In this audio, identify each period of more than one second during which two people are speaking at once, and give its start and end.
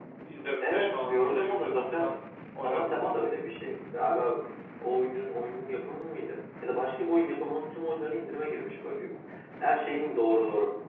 0.6-2.1

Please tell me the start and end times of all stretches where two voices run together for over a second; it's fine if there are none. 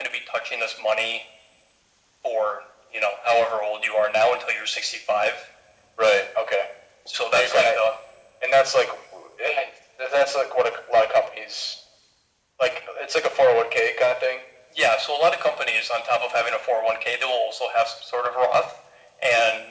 none

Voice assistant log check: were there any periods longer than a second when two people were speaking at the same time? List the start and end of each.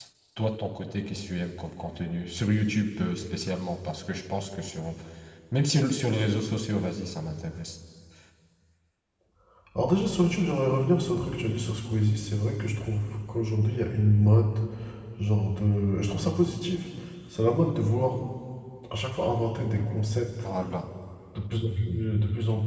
none

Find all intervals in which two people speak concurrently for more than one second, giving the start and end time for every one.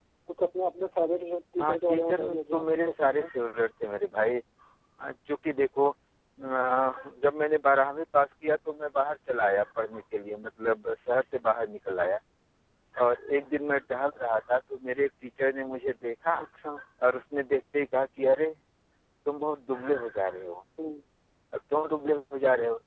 1.6-3.3

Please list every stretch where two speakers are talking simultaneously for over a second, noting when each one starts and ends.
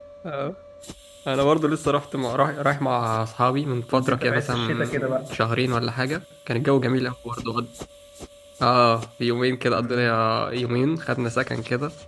3.9-5.4

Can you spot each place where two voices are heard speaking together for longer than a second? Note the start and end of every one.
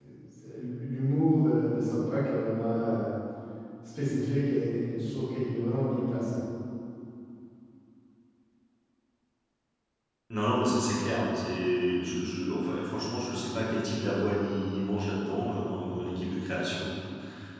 none

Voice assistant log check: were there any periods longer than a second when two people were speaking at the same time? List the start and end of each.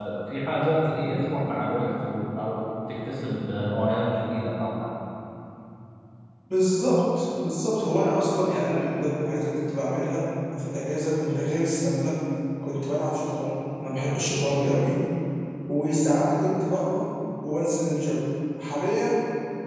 none

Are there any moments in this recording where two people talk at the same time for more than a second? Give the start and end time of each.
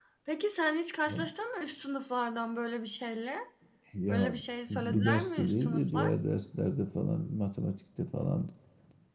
4.7-6.1

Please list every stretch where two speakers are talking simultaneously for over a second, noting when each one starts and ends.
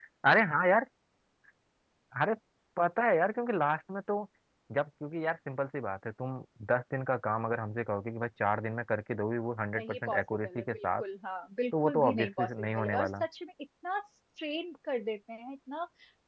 9.8-11.0, 11.8-13.2

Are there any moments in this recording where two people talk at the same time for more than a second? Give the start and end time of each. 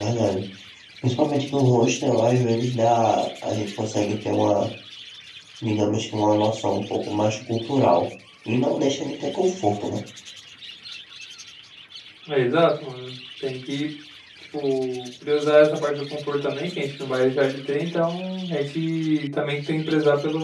none

